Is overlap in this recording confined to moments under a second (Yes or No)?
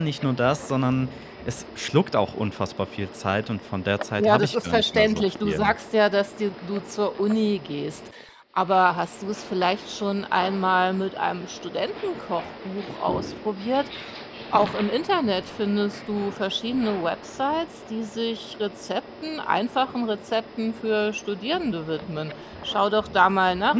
No